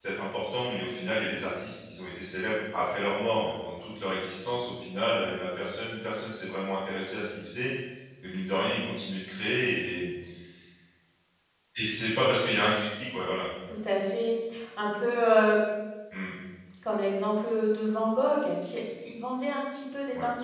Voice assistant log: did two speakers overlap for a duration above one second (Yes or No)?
No